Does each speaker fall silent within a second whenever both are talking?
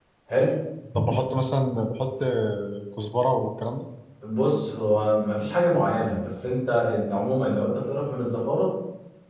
Yes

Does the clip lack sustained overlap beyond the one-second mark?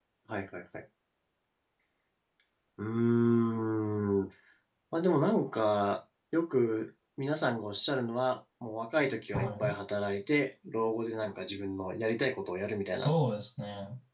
Yes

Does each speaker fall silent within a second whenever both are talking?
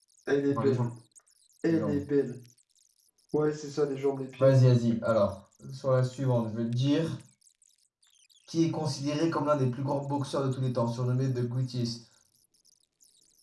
Yes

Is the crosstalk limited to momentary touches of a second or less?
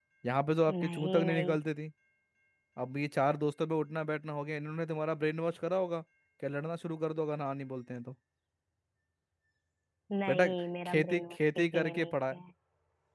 No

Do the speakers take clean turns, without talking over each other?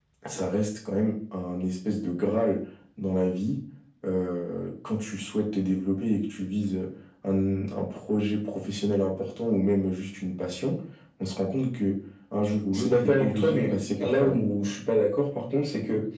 No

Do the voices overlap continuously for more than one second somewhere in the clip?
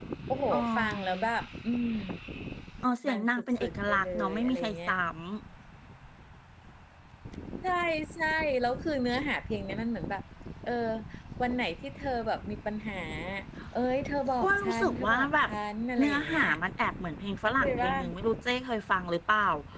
Yes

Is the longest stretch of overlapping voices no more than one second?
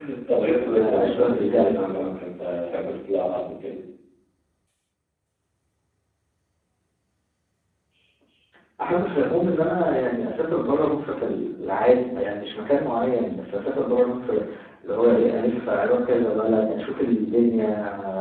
No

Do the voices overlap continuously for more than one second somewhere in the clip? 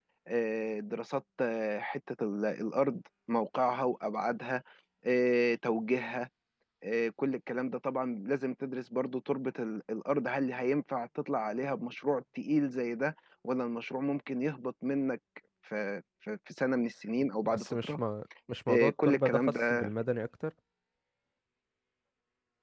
Yes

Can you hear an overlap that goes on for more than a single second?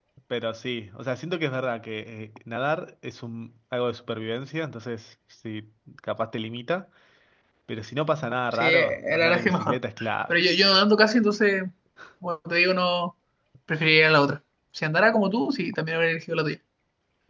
Yes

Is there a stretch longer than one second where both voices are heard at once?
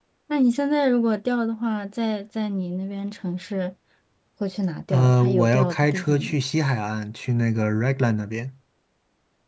Yes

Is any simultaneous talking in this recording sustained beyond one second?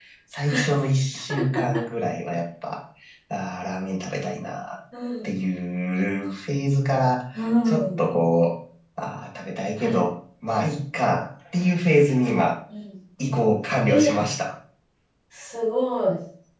No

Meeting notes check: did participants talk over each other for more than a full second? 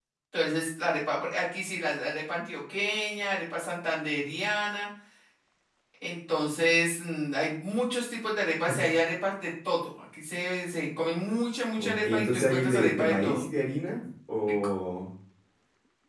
Yes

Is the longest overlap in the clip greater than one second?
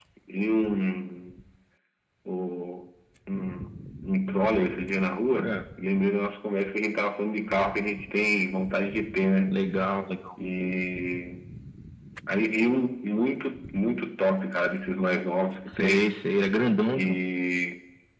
No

